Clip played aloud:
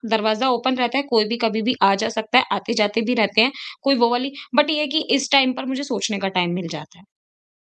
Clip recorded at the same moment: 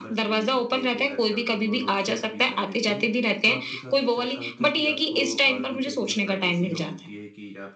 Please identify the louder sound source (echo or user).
echo